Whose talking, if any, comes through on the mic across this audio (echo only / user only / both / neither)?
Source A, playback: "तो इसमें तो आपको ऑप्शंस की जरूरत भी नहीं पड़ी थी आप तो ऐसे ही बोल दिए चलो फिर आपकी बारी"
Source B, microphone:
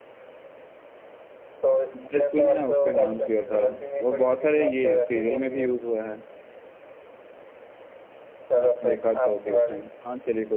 both